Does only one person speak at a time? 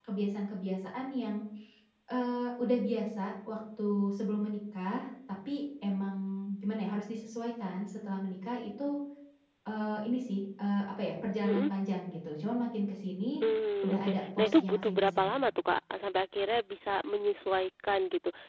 No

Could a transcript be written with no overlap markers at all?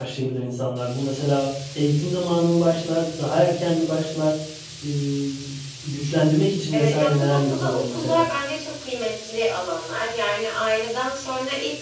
No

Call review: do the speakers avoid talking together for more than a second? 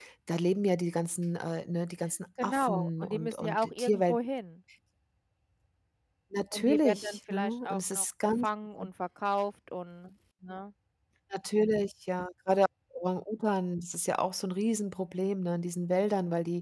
No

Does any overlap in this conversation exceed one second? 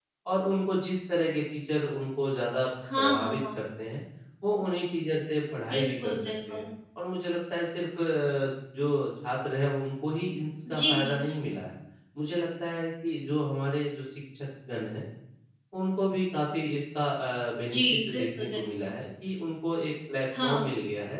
Yes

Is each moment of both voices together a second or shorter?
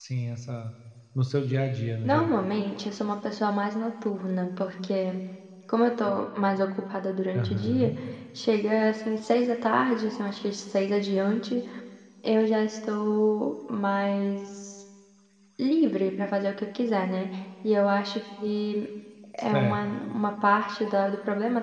Yes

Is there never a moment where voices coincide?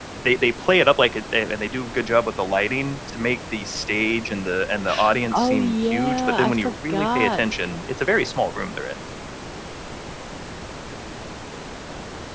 No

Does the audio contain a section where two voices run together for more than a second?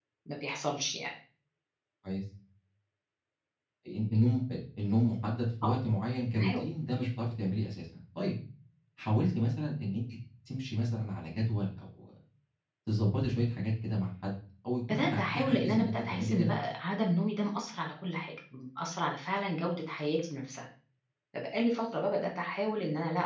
Yes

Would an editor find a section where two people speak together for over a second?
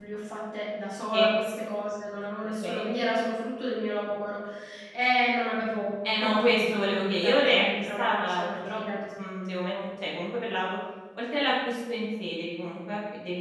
Yes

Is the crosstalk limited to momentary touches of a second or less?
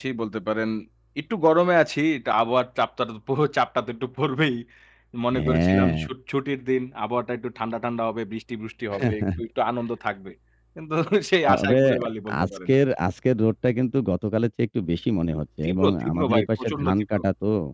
No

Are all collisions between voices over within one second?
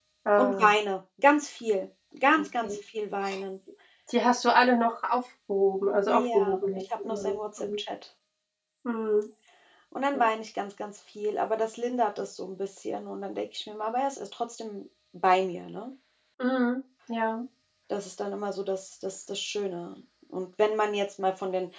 No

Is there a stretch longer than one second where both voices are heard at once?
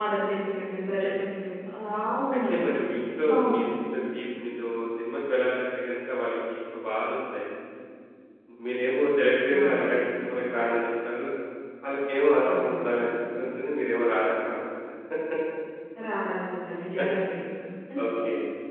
No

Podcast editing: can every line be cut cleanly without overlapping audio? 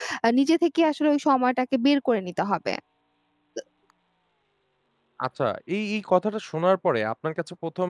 Yes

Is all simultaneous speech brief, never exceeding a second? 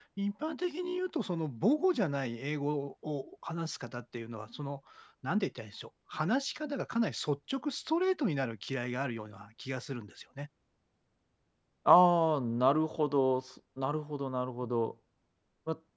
Yes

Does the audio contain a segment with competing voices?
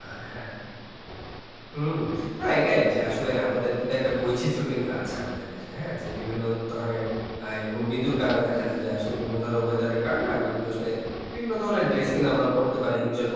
No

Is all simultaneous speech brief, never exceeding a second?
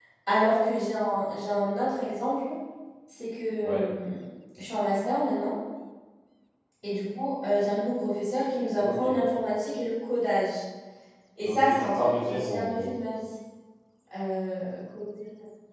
No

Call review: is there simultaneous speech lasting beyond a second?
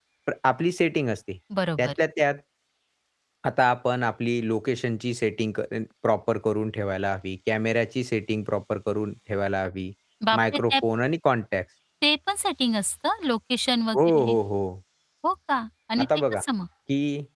No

